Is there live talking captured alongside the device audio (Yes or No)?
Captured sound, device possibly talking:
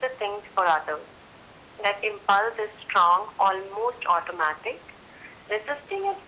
No